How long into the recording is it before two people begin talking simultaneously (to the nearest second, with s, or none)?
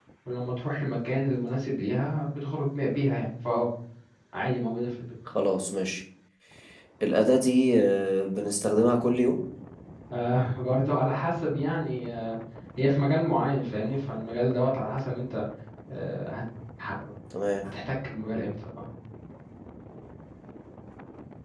none